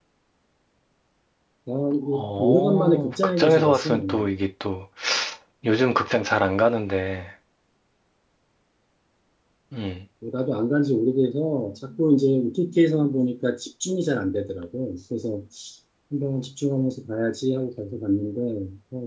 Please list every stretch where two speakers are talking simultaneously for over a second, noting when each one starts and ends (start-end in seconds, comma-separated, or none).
2.4-4.3